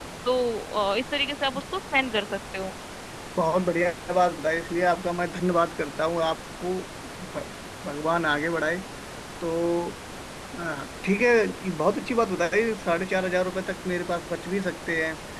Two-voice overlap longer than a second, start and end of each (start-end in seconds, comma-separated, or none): none